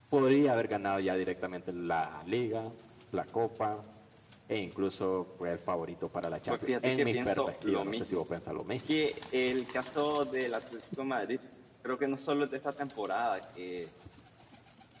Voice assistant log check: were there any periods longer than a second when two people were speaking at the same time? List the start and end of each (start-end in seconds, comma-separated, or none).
6.5-8.2